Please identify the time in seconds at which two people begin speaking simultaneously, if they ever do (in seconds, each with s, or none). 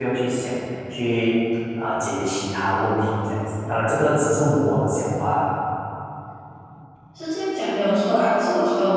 none